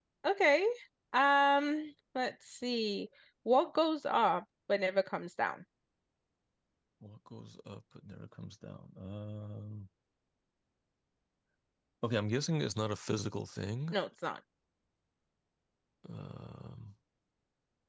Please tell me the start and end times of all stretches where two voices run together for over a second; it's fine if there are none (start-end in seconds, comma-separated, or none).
none